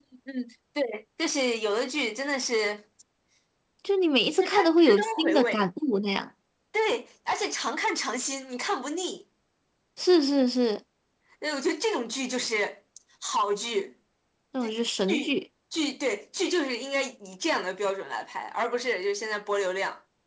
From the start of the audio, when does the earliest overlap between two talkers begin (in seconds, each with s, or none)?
4.4 s